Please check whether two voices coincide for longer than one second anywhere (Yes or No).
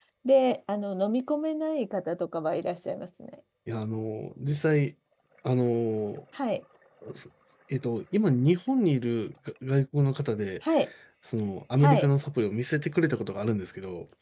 No